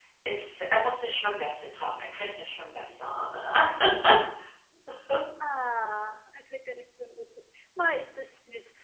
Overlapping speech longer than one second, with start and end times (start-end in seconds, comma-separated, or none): none